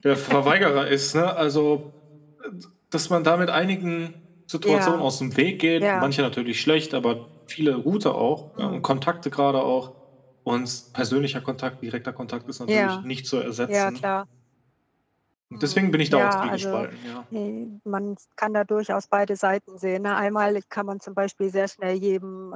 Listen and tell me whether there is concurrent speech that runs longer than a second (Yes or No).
Yes